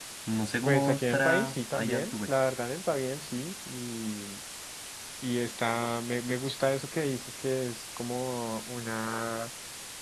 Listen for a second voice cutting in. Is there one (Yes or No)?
Yes